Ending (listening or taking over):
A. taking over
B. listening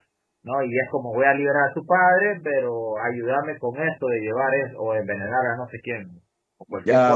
A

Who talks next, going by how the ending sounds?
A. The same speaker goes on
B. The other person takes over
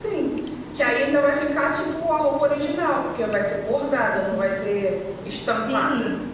B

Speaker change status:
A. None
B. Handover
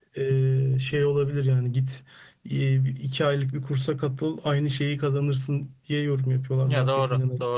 B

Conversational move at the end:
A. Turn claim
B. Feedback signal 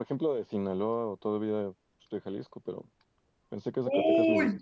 A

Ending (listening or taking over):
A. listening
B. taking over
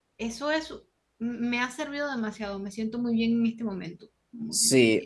B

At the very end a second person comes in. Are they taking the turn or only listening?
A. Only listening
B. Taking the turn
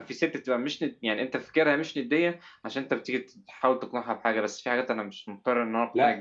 B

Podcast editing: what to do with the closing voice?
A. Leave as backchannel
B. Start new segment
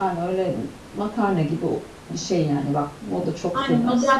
B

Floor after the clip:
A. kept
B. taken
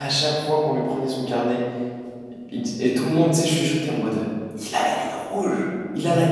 A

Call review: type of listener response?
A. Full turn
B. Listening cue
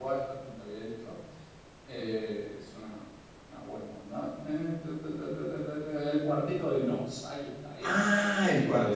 A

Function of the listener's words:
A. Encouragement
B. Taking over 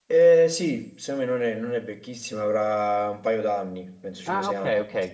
B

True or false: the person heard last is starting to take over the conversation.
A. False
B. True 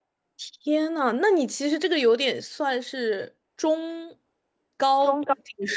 B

